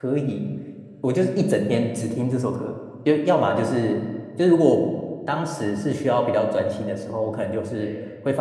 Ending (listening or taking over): listening